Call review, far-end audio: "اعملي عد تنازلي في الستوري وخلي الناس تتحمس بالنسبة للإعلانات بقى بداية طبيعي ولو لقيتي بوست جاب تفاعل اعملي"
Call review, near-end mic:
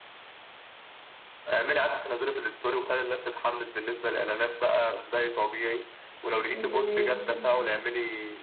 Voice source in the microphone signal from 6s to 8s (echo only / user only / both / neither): both